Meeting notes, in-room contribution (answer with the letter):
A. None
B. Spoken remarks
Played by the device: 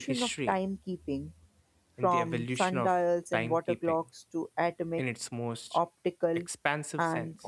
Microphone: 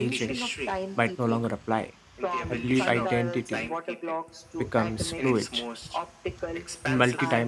B